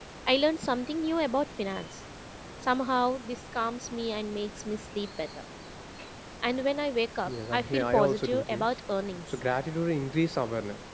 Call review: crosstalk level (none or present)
present